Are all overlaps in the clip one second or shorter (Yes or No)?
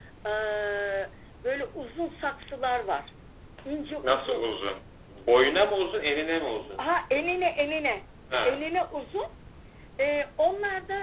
Yes